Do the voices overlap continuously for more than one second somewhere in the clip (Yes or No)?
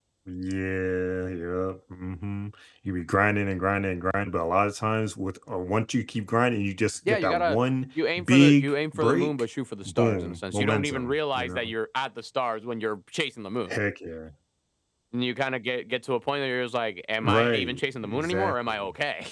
Yes